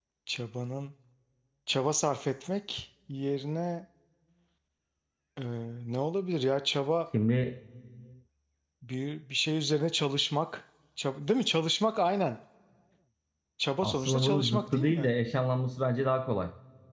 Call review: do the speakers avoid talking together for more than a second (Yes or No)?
No